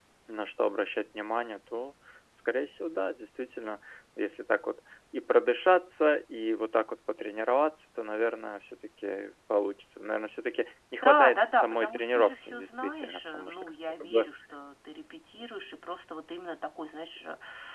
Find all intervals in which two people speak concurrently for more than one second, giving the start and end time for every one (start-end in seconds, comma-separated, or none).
11.0-14.3